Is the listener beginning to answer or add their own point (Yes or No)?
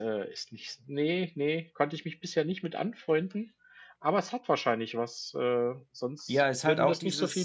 Yes